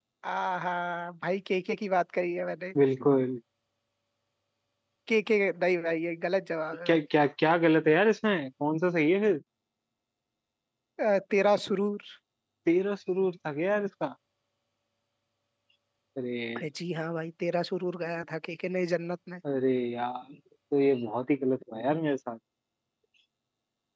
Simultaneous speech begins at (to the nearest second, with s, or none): none